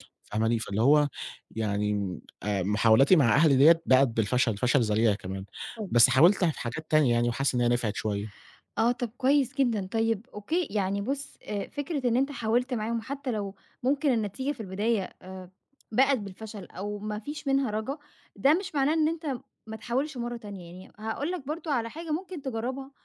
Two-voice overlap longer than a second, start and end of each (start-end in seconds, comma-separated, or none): none